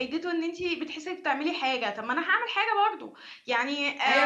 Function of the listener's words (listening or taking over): taking over